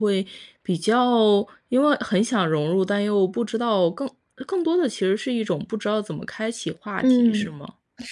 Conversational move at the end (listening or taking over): taking over